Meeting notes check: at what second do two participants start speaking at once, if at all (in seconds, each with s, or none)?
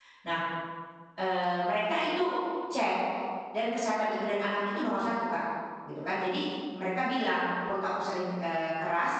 none